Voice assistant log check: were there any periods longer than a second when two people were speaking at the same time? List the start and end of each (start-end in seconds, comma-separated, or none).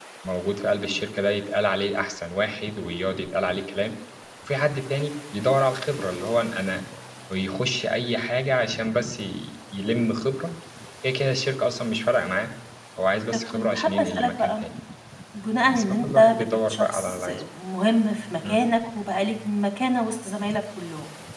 13.3-14.5, 15.7-17.4